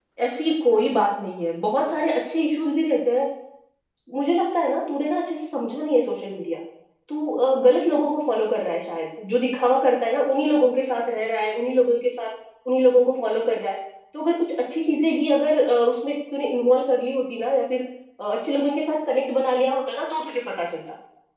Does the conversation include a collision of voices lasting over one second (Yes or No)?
No